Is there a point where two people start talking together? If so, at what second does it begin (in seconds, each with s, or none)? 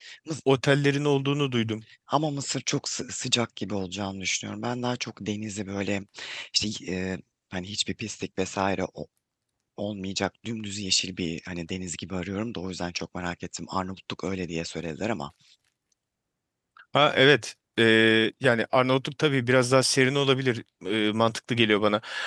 none